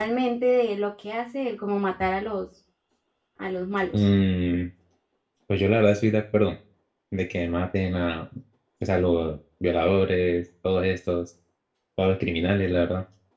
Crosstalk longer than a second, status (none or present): none